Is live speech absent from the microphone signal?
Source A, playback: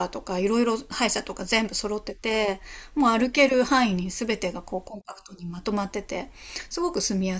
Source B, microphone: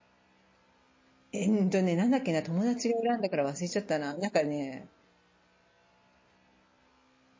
No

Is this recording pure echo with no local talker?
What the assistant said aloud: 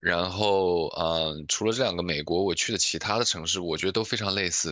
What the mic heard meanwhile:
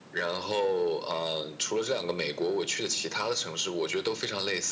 Yes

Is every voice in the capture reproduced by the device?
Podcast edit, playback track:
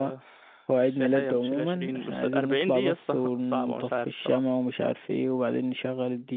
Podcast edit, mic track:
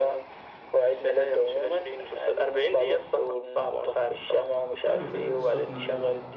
No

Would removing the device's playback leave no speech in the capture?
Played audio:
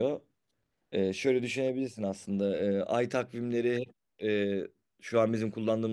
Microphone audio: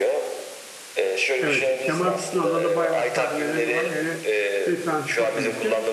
No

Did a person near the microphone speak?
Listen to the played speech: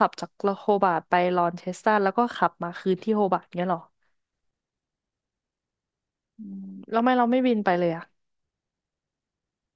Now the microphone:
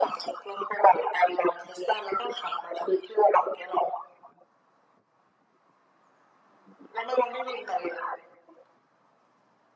No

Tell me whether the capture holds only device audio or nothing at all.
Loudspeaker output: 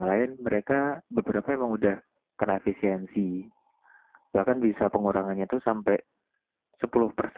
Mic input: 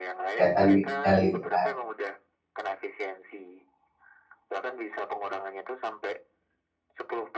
No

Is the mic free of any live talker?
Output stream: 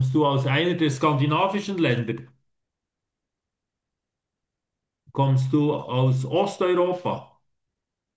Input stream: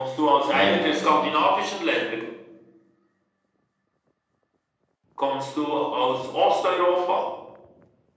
No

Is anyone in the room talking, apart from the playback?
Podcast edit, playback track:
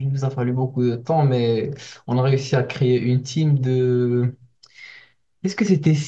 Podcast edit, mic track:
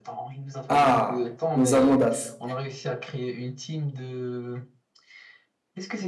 Yes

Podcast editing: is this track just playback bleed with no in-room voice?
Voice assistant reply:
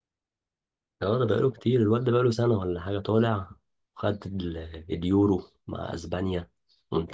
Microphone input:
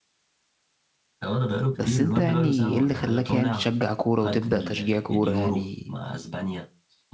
No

